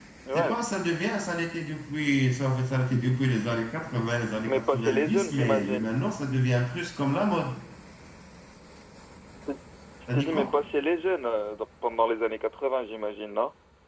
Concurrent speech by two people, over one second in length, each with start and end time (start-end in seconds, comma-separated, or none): 4.5-5.8